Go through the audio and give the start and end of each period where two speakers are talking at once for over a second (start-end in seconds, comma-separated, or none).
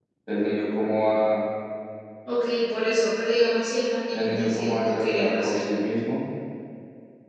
4.1-5.6